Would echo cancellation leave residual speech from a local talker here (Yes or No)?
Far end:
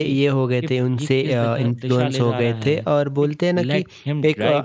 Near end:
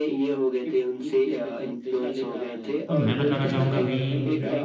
Yes